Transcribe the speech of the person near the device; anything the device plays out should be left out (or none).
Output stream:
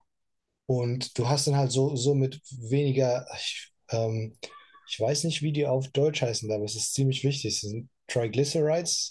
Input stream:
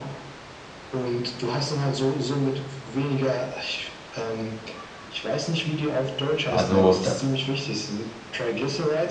Also, da,